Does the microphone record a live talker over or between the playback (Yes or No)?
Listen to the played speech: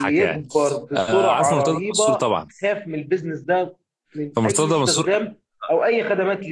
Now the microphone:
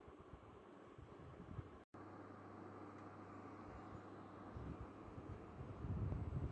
No